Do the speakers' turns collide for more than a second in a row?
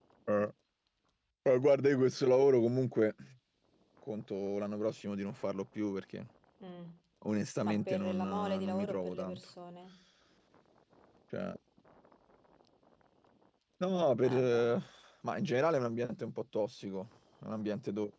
Yes, from 7.6 s

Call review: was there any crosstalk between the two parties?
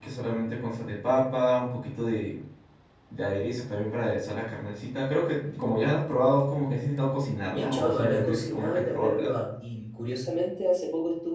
Yes, from 7.5 s

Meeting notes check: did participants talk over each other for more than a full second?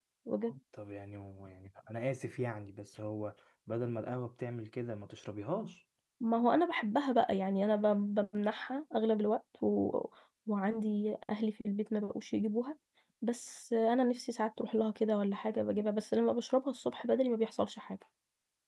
No

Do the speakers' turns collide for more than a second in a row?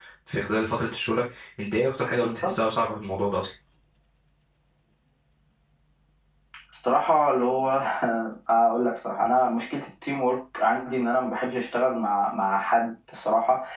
No

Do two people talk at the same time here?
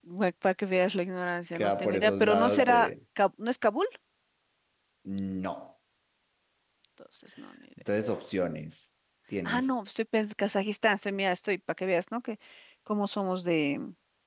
Yes, from 1.5 s

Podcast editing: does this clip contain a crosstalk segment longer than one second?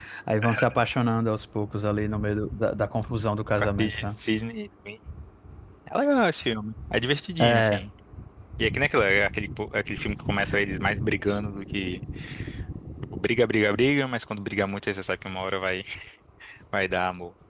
No

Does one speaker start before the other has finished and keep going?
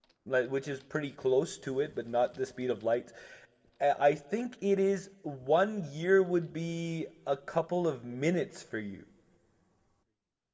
No

